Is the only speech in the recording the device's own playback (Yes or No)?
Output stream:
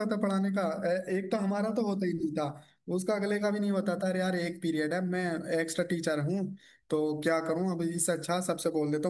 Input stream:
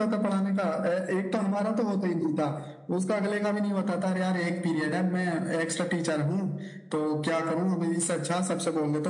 Yes